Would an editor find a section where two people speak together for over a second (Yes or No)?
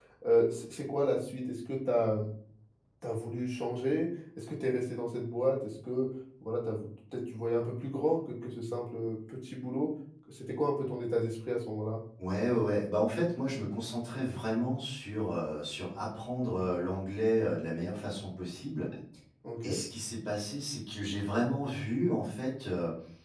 No